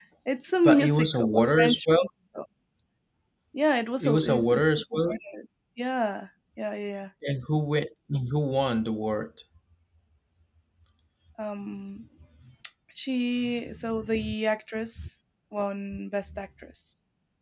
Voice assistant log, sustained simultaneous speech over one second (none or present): present